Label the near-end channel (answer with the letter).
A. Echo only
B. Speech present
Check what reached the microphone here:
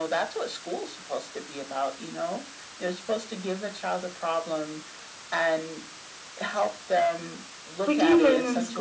B